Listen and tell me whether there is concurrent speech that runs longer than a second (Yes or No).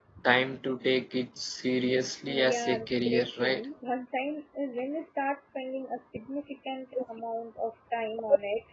Yes